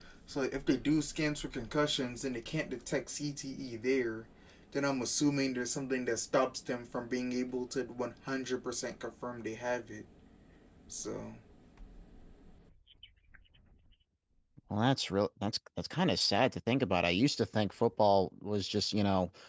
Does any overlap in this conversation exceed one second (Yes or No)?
No